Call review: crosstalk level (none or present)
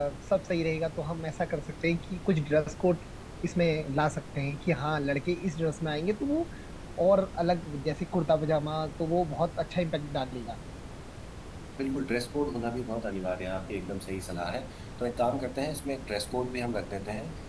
none